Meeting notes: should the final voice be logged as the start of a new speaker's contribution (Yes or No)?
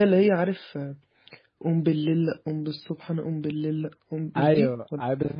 Yes